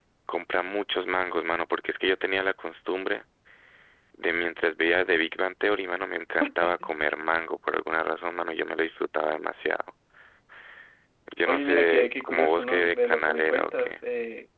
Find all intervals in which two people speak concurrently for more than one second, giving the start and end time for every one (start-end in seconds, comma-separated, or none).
11.5-13.9